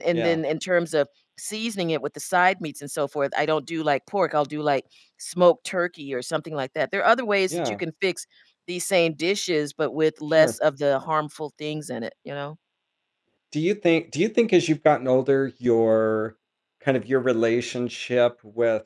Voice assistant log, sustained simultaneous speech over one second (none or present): none